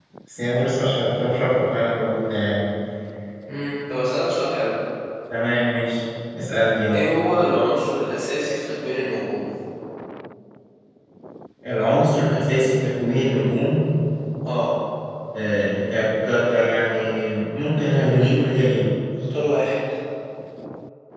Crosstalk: none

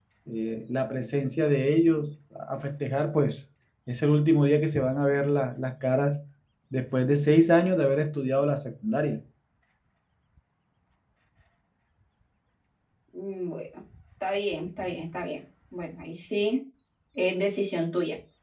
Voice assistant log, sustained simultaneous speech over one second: none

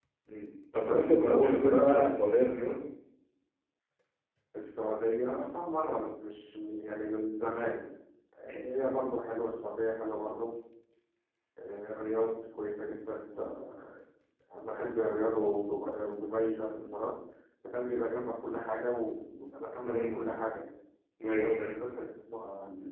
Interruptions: present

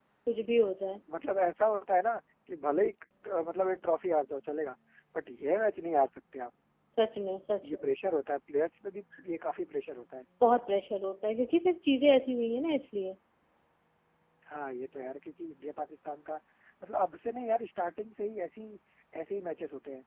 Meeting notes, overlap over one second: none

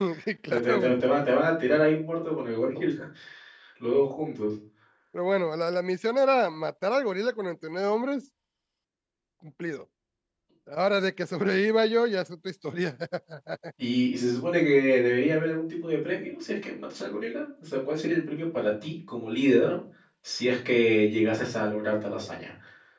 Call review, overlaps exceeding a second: none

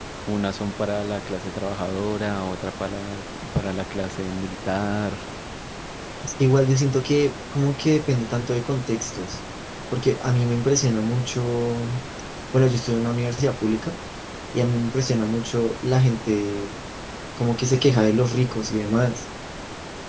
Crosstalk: none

